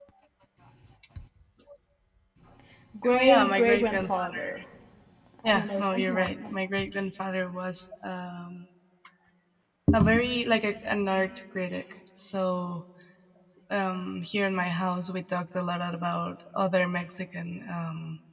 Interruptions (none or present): present